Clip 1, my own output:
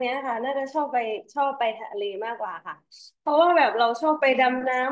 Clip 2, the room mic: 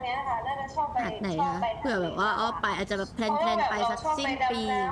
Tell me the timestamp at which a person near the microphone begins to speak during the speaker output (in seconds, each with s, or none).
1.0 s